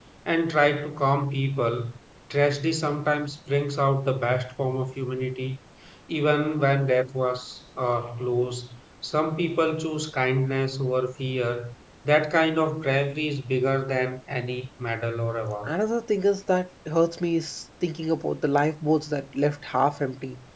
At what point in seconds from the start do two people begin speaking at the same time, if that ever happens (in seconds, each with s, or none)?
none